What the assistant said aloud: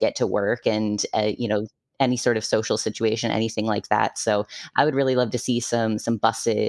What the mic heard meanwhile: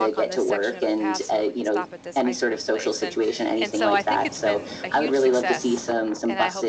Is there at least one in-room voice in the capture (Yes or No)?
Yes